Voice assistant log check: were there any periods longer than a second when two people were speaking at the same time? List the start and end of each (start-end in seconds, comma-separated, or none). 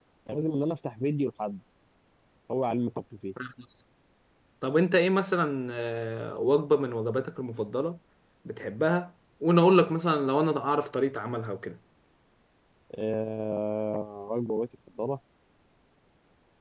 none